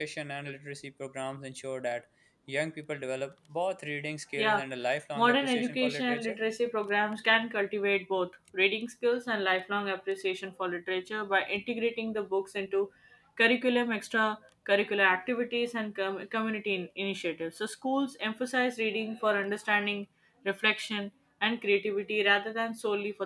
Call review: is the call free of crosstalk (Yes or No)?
No